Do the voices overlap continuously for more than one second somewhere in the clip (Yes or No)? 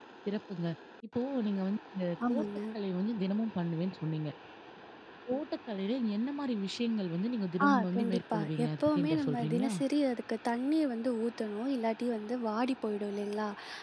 Yes